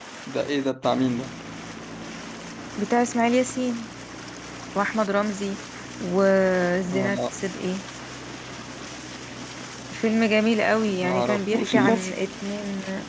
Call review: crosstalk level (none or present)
present